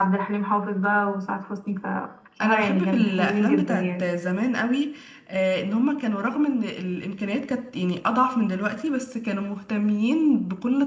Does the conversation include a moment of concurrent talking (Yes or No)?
Yes